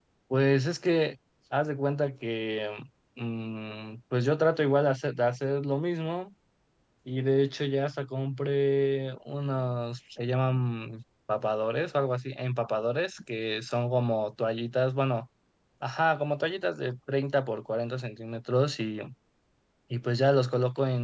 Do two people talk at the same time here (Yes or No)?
No